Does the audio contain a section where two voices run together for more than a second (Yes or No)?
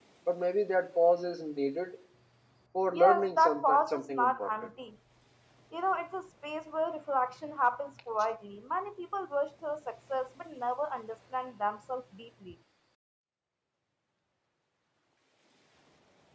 Yes